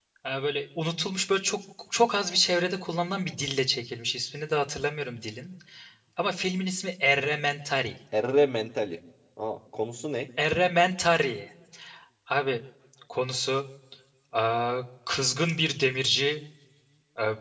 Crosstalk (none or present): none